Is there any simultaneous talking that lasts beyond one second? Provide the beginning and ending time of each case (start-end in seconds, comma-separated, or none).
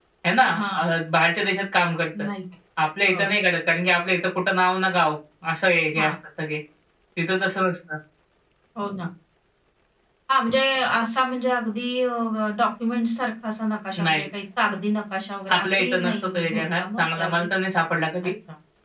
15.6-17.5